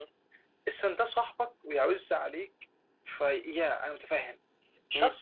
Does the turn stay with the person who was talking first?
Yes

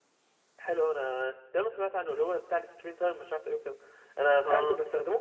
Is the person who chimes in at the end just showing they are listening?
Yes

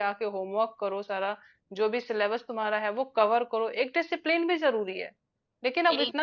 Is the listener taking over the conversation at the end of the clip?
No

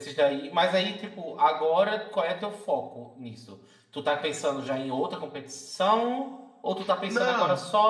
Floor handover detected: No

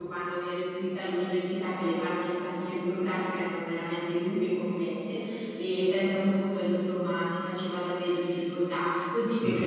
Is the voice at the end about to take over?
Yes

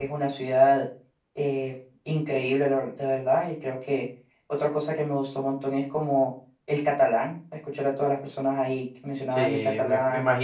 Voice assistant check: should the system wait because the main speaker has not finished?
No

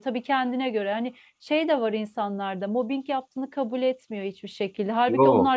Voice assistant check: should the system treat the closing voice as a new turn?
No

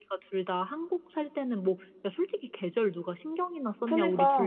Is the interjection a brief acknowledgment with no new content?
No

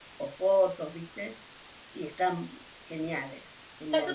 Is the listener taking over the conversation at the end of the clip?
Yes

